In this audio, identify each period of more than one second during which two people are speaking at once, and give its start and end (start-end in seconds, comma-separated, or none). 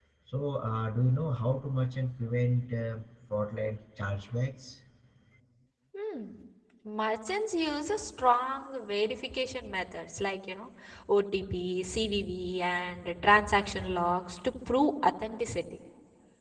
none